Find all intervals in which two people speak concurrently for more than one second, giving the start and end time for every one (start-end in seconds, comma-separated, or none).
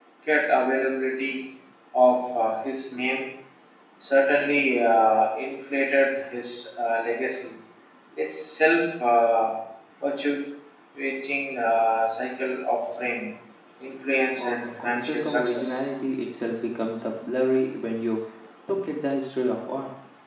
14.4-15.8